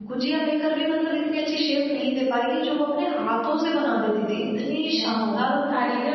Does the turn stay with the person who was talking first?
No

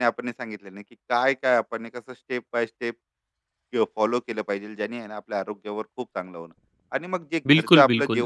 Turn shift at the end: No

